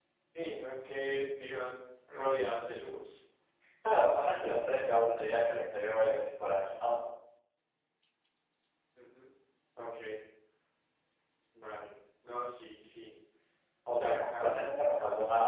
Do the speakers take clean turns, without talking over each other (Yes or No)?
No